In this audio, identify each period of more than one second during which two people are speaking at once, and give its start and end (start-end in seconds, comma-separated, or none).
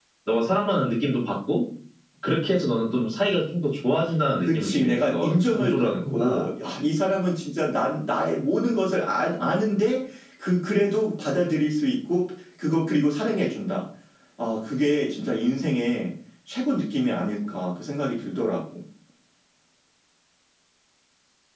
4.4-6.5